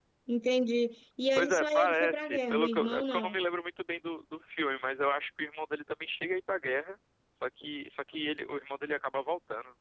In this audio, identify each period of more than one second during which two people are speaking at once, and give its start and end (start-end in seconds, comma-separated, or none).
1.4-3.4